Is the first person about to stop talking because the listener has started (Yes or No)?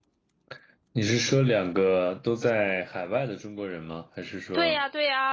Yes